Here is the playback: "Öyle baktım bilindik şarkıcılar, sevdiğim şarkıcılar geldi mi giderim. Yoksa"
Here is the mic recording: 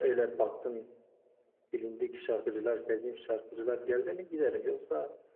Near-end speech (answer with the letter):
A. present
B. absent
B